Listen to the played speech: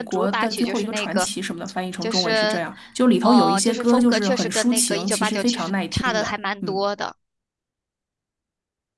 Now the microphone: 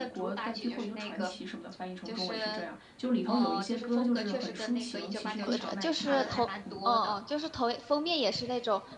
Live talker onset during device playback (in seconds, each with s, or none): 5.4 s